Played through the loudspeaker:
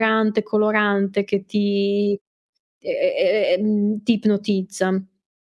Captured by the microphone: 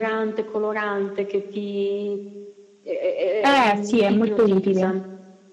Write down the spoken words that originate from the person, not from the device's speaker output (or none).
Eh sì, è molto utile.